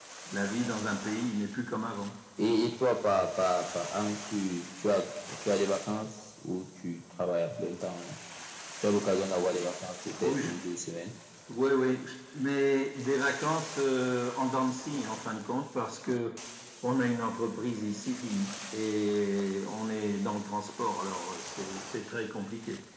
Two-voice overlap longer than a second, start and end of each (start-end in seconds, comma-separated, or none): none